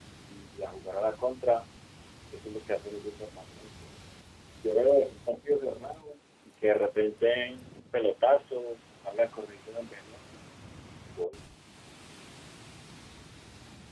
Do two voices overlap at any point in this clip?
No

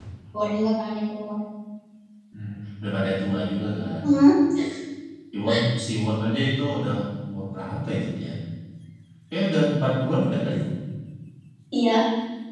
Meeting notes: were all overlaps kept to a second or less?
Yes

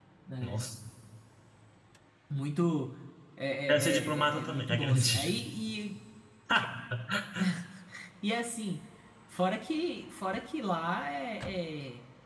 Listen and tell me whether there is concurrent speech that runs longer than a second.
Yes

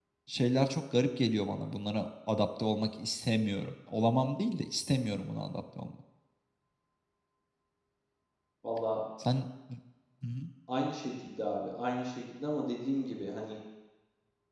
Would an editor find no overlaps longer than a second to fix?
Yes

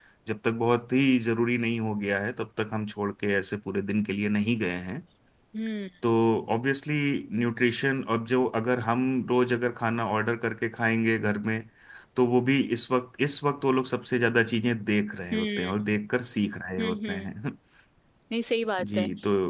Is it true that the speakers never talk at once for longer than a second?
Yes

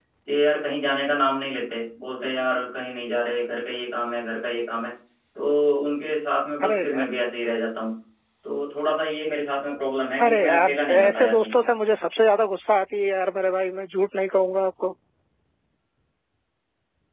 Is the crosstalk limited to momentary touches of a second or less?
No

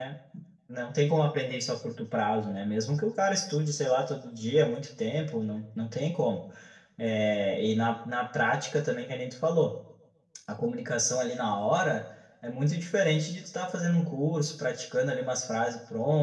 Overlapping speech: No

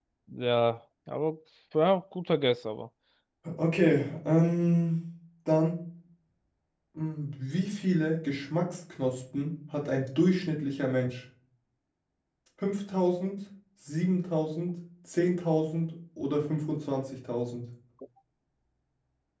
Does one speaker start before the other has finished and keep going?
No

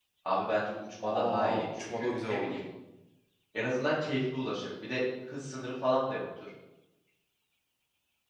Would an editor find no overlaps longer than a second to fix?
No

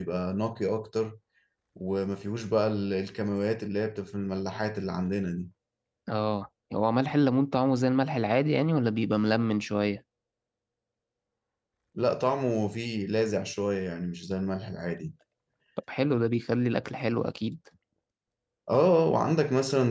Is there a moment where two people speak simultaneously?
No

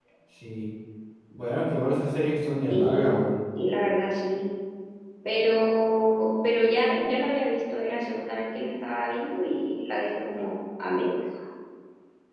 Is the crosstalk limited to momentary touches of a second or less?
Yes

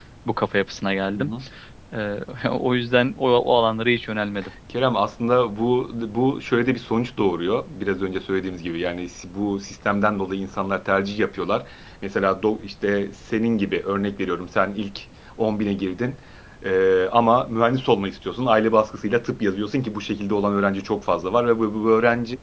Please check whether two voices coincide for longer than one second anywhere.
No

